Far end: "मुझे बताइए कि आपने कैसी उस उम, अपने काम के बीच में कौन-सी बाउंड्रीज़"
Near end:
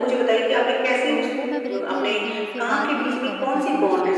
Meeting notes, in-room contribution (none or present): present